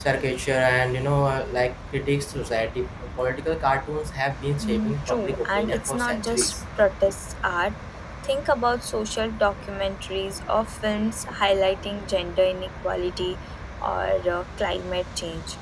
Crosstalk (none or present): present